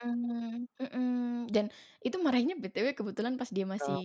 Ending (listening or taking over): listening